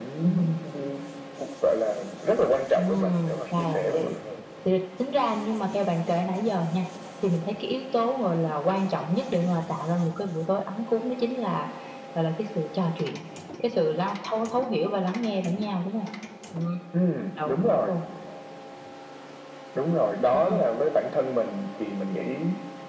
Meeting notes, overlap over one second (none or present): present